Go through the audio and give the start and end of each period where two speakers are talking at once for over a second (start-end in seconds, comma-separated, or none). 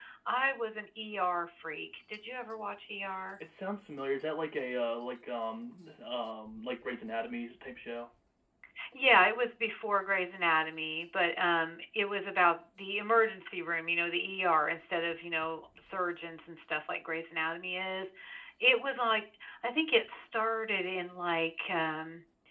none